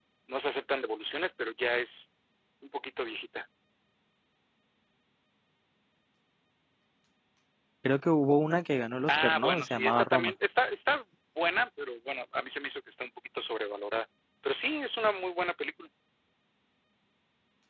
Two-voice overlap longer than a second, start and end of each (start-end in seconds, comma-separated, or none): 9.1-10.3